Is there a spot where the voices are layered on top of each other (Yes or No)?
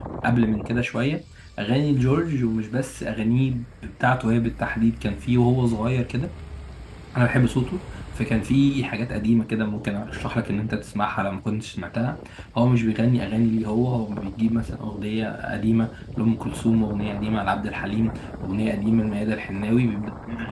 No